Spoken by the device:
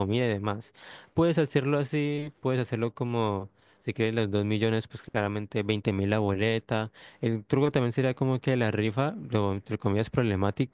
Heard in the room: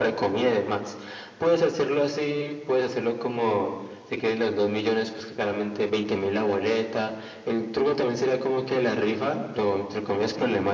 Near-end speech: none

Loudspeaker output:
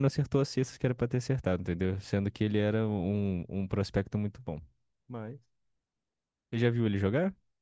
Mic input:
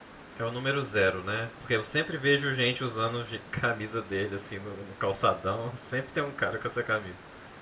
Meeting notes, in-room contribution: present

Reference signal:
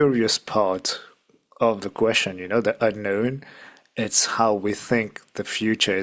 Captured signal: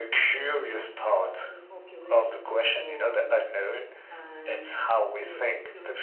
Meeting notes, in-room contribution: present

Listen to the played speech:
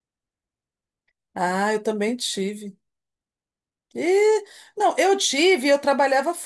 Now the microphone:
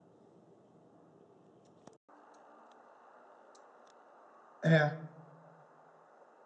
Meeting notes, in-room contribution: present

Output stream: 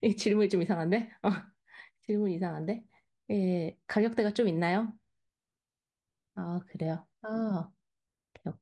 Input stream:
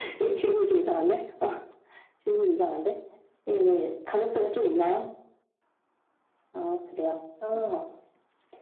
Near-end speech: none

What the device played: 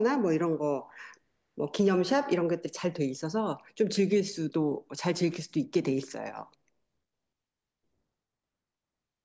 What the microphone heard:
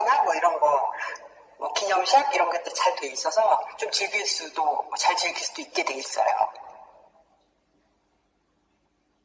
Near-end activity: none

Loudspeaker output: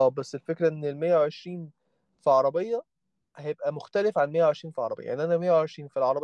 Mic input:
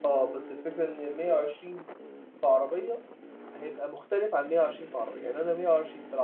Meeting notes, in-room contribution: none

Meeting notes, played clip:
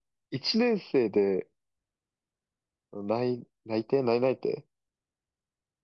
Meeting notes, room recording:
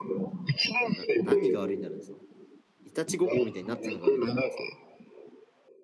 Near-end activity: present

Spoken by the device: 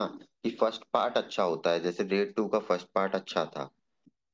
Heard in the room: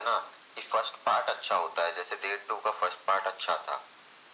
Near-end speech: none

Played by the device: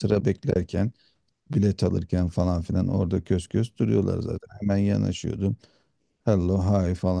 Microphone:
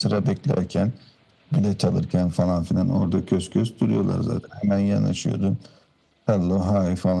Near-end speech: none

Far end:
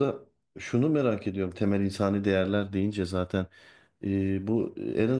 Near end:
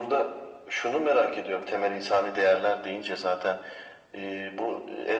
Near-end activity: none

